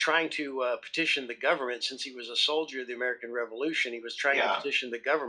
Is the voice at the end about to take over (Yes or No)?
No